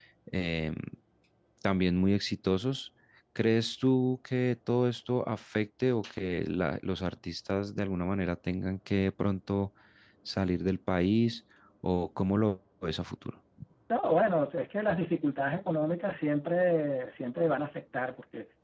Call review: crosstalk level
none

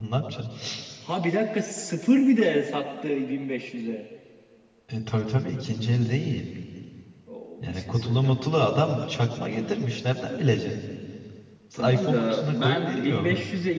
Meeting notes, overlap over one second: present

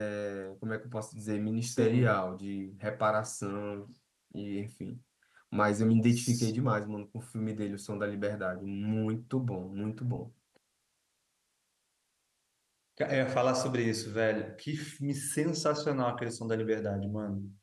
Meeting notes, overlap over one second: none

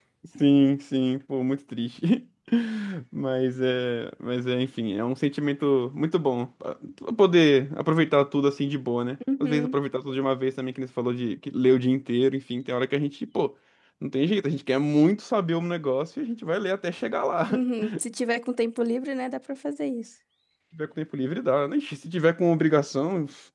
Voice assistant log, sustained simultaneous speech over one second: none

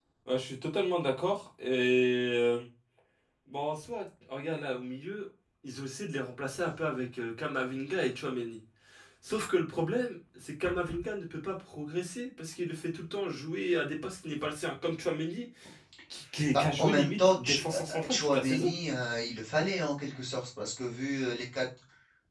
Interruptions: present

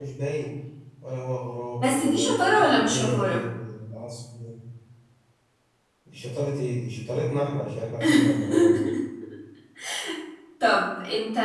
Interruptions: present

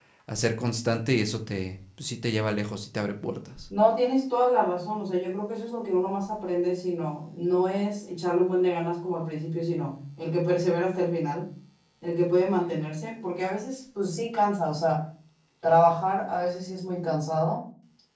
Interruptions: none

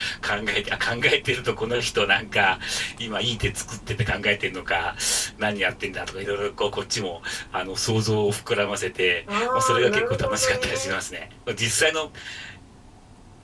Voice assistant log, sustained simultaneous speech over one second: present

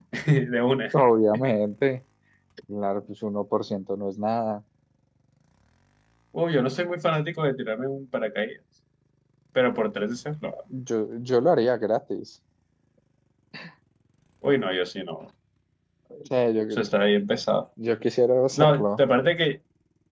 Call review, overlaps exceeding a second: none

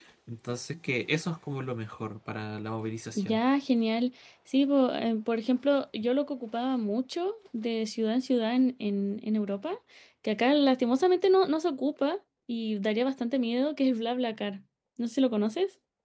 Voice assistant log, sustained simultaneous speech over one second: none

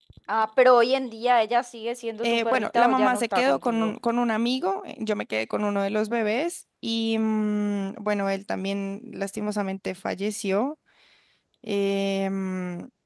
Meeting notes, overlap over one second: present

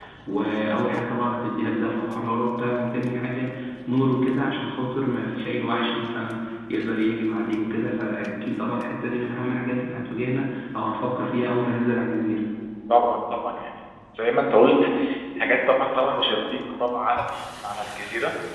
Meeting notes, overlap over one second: none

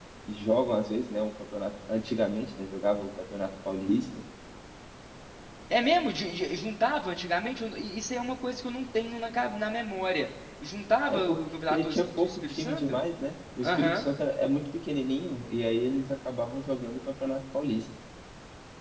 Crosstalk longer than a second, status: present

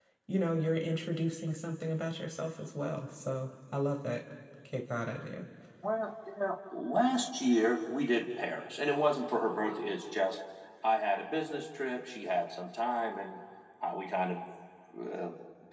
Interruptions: none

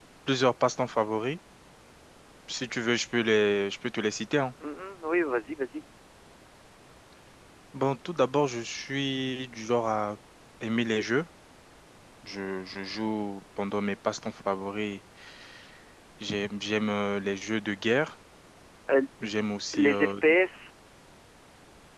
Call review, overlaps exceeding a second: none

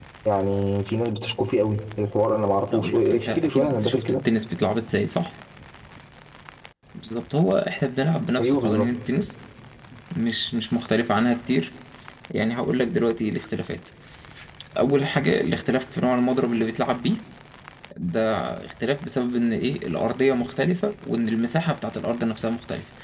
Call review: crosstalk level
present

